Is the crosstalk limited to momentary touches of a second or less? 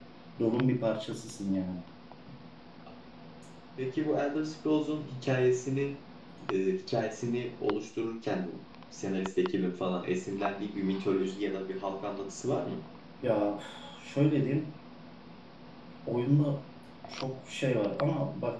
Yes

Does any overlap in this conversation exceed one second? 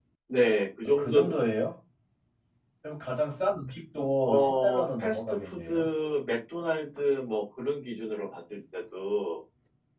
Yes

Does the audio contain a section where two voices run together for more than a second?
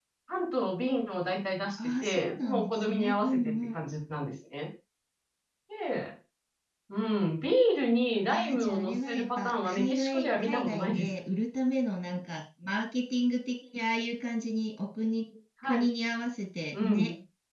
Yes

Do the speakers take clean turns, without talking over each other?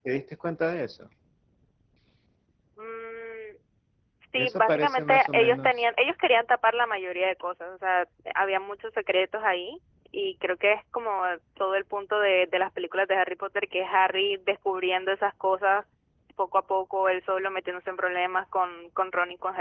No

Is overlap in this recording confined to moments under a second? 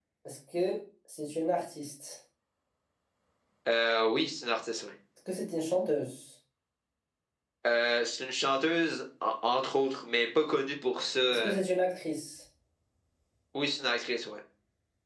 Yes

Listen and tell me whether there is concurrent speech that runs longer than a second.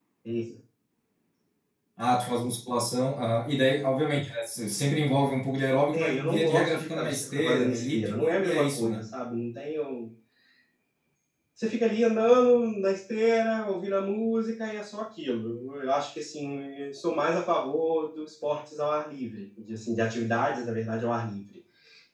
Yes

